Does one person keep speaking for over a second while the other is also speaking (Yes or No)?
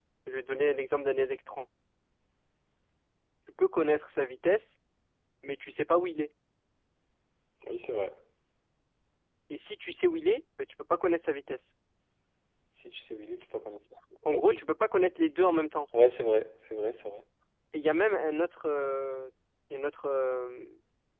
No